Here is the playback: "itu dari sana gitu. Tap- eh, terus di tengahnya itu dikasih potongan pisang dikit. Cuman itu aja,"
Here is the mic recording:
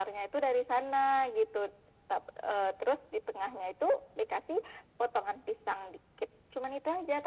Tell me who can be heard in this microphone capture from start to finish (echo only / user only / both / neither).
echo only